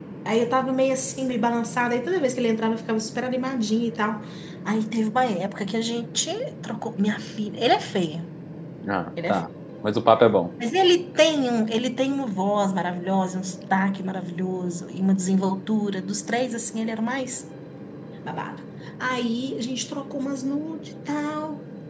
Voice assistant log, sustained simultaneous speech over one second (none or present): none